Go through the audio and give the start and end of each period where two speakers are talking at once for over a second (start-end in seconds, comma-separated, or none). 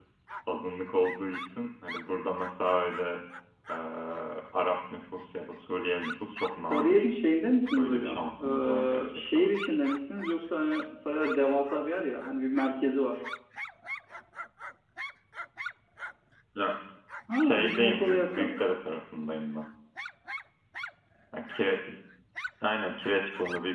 7.8-9.5, 17.3-18.5